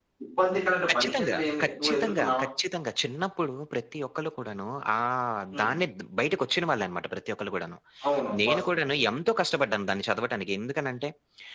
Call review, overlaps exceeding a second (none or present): present